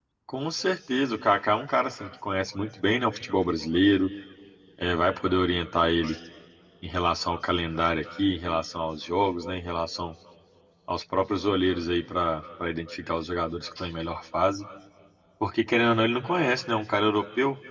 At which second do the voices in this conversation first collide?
none

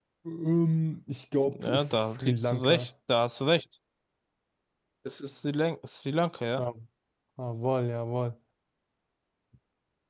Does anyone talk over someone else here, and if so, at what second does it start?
1.5 s

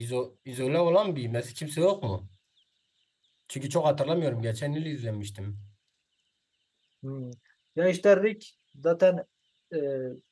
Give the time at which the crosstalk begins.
none

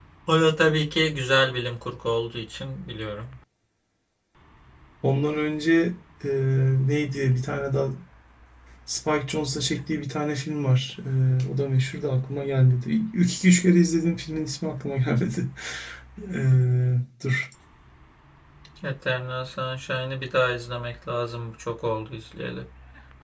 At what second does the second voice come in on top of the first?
none

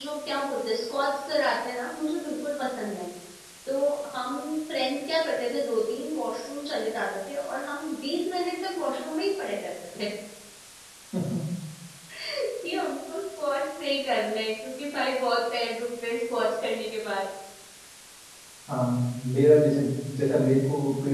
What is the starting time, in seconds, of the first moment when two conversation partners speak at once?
none

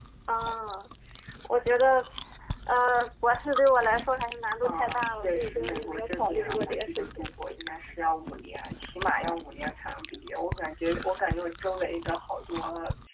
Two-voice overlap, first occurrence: 4.6 s

